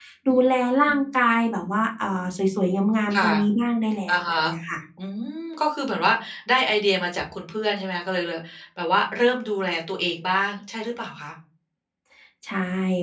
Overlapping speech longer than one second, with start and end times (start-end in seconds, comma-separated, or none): none